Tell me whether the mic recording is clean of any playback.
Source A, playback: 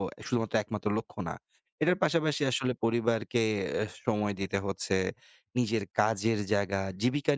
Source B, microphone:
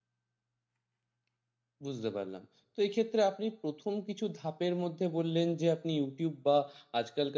Yes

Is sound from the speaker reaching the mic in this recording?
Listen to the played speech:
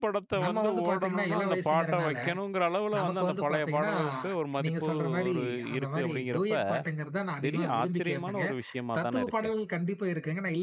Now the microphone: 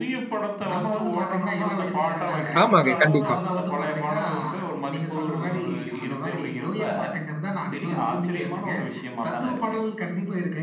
Yes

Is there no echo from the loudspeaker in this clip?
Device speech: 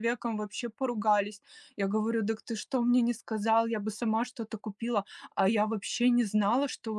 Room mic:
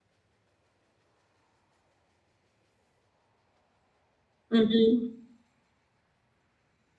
Yes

